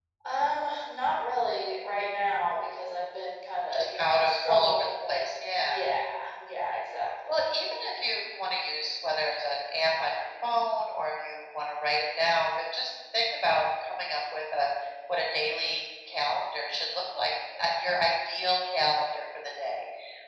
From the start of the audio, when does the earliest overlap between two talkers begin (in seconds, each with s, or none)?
3.7 s